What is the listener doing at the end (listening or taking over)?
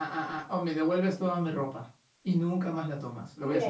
taking over